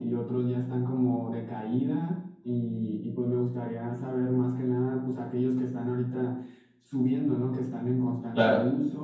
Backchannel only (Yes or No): Yes